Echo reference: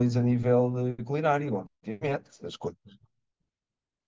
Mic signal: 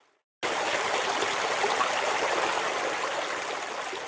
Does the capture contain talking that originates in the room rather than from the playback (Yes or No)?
No